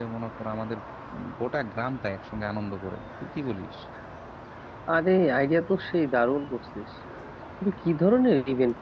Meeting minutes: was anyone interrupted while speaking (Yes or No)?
No